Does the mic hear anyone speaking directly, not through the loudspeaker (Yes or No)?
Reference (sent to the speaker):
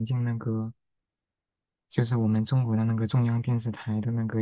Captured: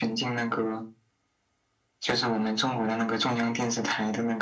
No